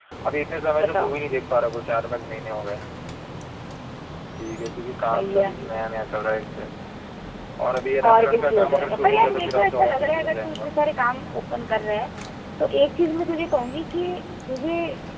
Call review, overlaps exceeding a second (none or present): present